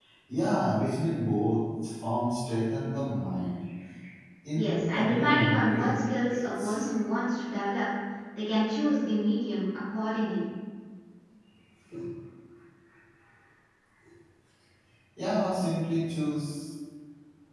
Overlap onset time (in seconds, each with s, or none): 4.5 s